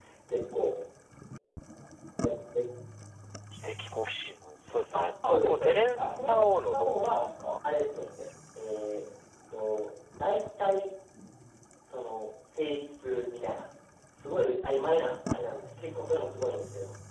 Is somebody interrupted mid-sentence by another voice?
Yes, from 4.9 s

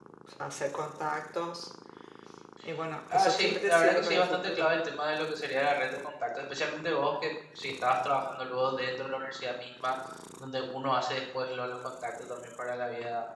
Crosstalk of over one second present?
Yes, from 3.1 s

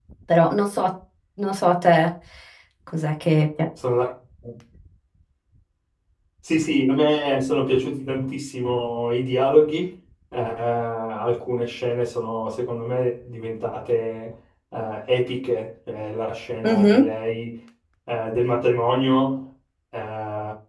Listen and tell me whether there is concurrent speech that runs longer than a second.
No

